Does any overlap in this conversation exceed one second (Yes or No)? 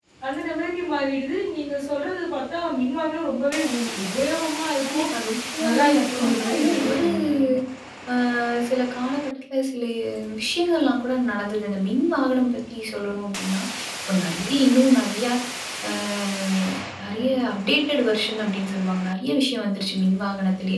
Yes